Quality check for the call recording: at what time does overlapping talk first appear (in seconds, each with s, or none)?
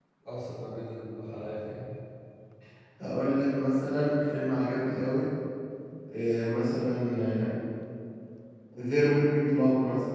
none